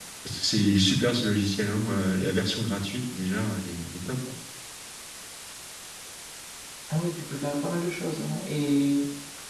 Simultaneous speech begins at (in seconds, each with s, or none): none